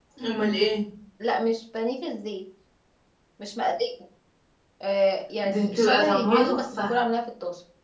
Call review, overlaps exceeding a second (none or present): present